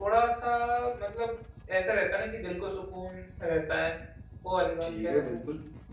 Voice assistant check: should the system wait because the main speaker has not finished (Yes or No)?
No